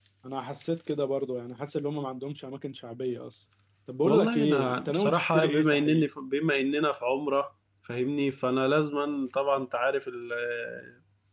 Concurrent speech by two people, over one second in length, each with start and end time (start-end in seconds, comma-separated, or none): 4.0-6.0